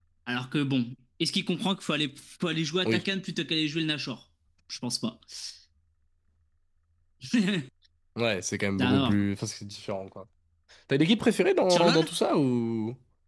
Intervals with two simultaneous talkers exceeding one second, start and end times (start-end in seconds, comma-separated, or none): none